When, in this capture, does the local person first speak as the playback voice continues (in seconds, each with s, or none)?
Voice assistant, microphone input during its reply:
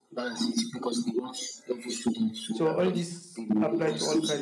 2.5 s